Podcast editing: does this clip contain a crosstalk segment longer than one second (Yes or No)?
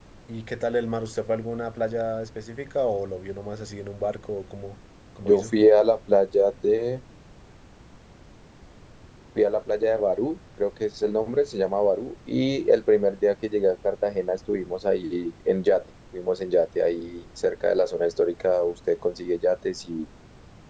No